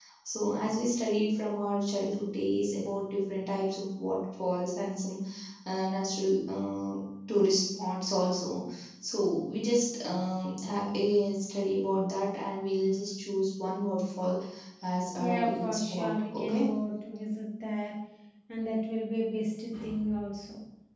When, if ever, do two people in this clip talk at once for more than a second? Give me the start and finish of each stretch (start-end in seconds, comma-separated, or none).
15.2-16.7